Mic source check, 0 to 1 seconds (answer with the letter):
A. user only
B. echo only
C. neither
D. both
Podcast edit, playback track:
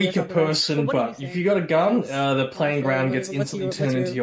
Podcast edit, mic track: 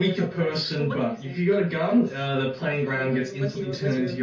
B